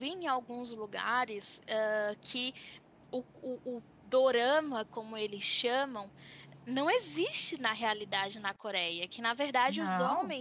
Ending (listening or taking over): listening